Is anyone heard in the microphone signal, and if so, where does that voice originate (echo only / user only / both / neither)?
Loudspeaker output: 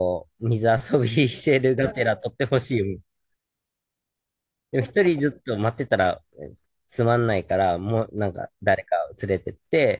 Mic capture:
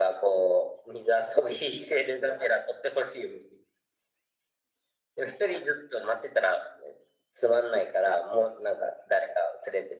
echo only